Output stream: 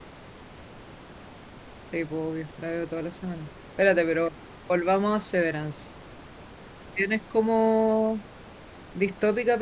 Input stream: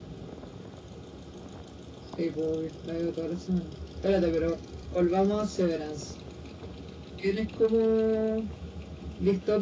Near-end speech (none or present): none